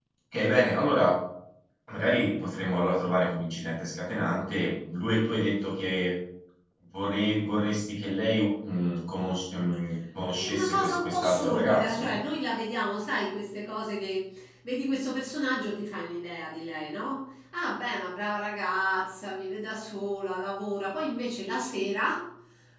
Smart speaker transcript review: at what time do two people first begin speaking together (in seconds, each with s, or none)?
10.4 s